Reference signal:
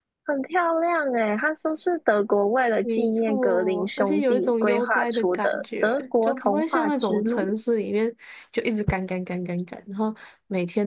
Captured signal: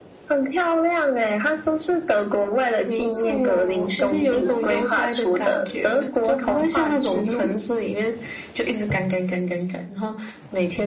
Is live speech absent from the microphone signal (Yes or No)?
No